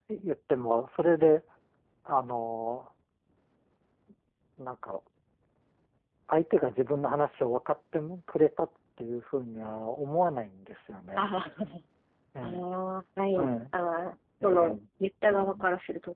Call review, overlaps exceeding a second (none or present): none